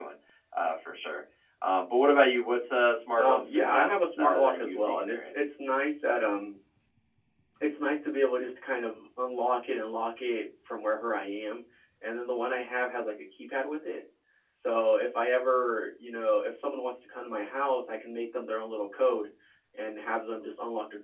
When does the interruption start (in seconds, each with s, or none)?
3.2 s